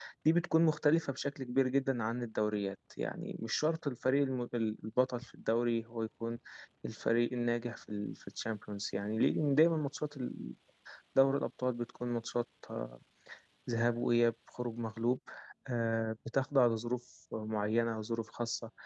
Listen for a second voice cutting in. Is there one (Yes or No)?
No